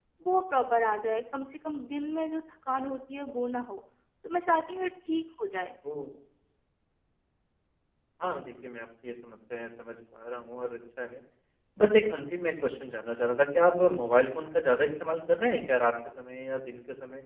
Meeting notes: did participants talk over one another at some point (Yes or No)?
No